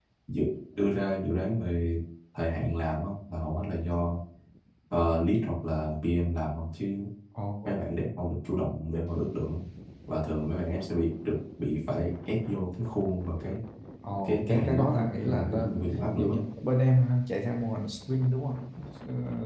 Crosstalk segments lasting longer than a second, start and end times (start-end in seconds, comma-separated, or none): 14.2-16.4